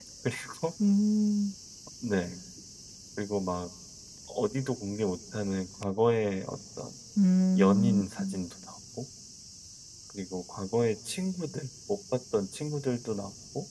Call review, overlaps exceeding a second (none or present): none